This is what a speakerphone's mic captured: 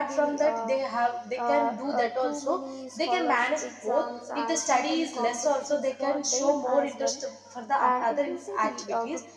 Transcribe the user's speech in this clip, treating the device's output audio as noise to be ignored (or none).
none